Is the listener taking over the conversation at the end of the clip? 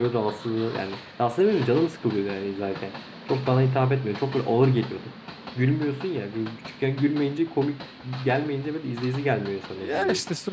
Yes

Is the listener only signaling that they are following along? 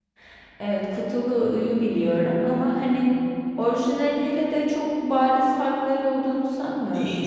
No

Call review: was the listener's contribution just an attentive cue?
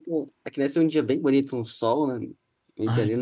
Yes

